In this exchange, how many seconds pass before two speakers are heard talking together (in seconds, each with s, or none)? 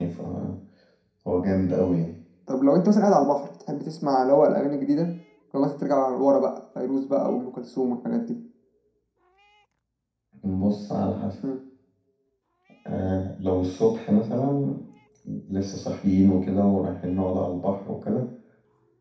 none